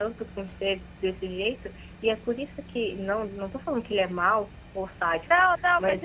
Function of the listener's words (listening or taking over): taking over